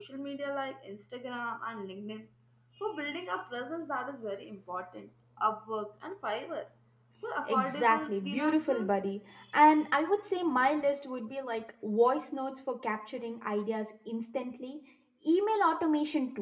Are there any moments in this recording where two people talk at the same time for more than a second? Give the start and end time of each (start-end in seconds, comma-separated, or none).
7.5-9.0